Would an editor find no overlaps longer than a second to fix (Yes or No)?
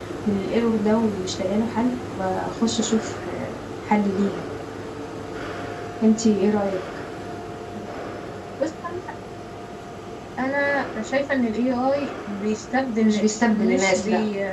No